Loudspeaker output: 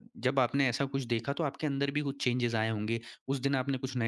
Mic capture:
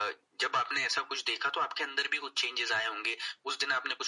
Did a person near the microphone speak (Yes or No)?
No